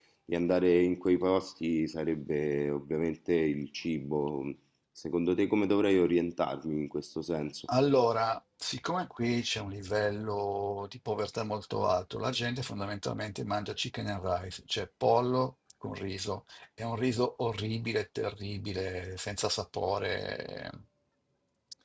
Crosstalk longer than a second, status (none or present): none